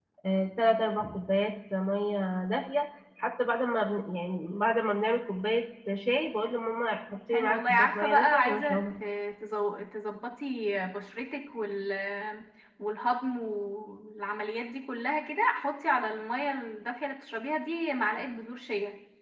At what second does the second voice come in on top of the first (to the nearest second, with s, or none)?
7 s